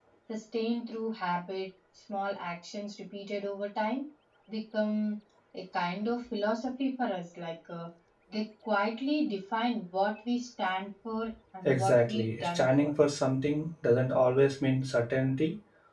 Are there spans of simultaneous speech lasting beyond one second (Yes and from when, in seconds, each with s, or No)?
Yes, from 11.6 s